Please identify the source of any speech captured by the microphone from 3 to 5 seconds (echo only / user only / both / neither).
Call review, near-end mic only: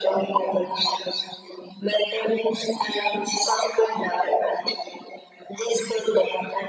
echo only